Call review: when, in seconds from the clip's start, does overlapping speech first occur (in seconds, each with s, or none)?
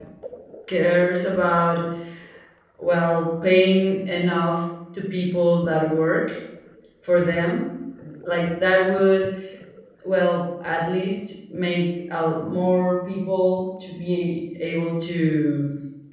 none